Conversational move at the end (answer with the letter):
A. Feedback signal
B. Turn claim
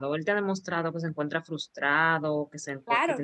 B